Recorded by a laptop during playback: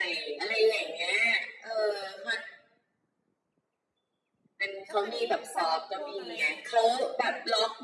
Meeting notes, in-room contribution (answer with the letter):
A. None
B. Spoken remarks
B